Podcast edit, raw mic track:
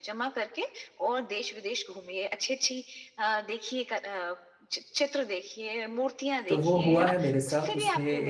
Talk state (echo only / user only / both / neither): both